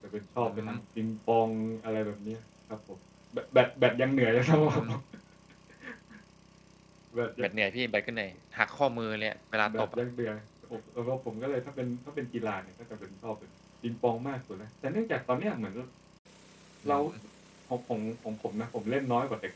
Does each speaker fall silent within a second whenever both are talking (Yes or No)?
Yes